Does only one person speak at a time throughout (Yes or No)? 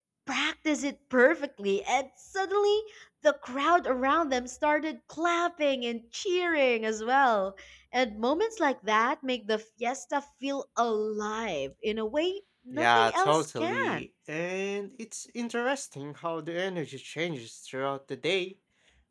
No